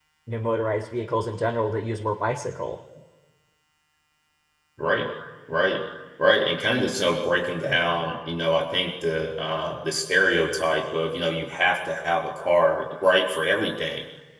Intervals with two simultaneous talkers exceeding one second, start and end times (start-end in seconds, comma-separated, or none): none